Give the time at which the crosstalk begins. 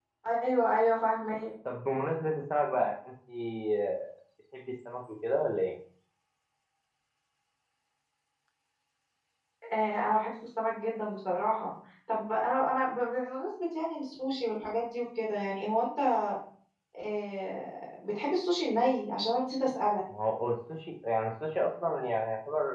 none

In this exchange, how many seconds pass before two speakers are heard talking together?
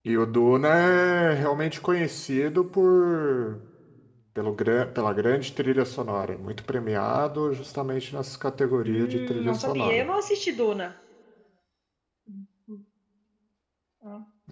9 s

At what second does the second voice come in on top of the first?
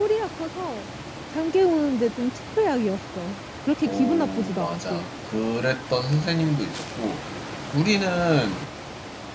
4 s

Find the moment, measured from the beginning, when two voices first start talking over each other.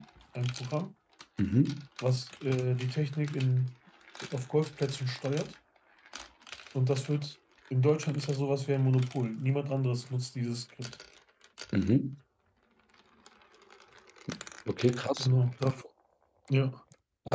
none

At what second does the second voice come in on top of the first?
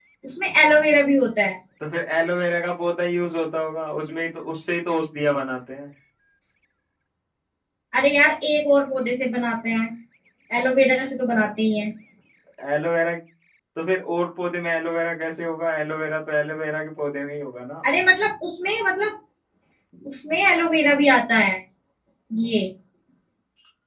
none

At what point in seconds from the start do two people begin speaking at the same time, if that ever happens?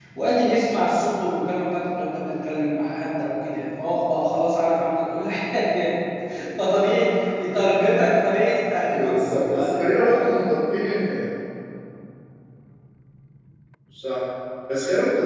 9 s

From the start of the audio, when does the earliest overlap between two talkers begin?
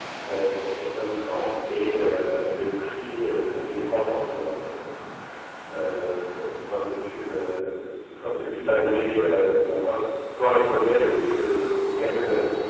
none

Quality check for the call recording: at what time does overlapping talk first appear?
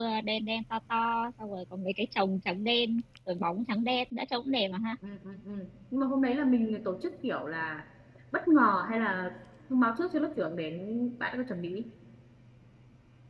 none

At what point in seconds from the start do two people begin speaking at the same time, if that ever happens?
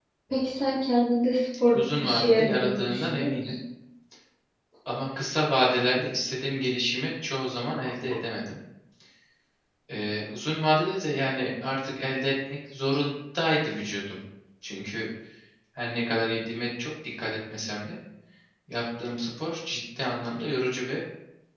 2 s

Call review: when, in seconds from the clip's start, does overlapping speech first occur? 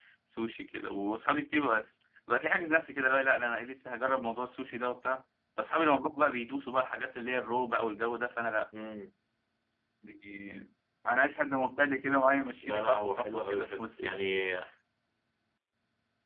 13 s

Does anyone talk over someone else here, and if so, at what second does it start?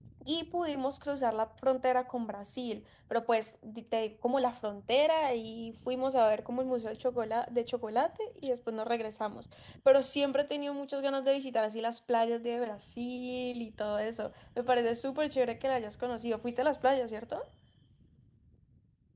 none

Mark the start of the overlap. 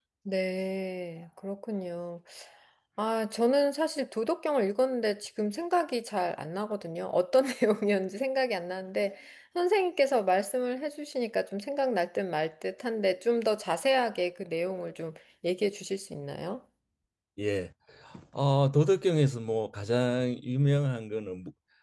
none

